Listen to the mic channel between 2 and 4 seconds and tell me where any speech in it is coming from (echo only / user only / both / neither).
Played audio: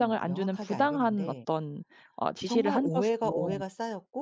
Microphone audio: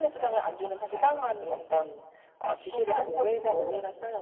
echo only